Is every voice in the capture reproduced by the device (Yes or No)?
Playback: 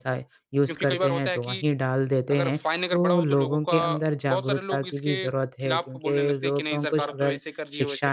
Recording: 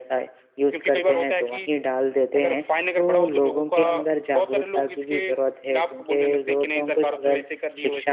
Yes